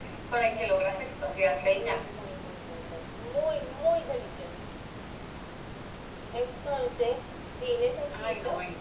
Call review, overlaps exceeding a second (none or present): present